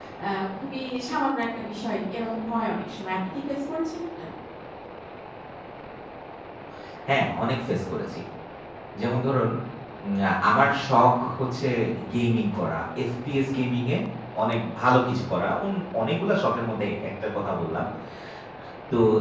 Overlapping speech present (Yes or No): No